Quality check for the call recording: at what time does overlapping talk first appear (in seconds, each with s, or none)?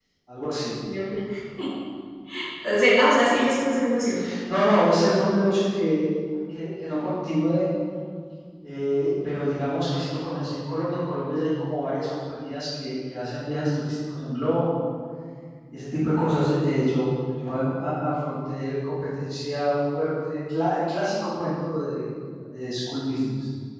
none